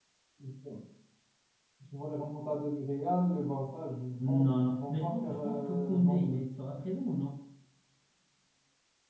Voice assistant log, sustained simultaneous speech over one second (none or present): present